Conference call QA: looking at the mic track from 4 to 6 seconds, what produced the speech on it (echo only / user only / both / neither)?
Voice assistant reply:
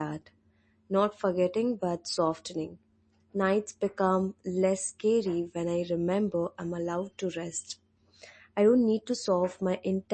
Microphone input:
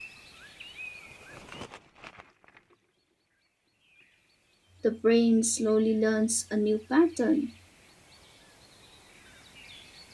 user only